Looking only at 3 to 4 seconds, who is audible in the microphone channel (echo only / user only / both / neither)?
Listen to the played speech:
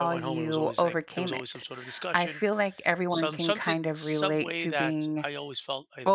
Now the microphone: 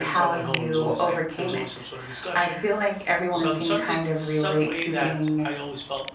echo only